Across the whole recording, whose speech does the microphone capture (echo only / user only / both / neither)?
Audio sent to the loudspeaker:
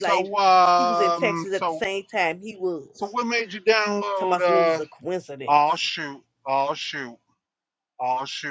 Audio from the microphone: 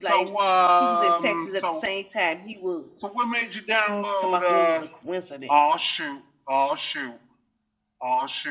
echo only